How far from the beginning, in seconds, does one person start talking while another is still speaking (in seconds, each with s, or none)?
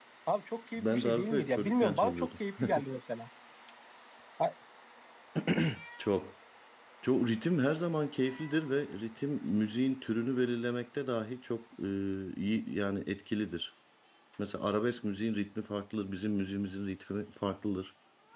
0.8 s